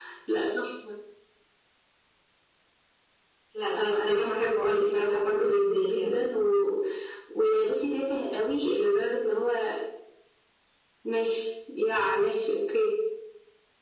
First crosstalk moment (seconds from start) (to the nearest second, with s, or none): 4 s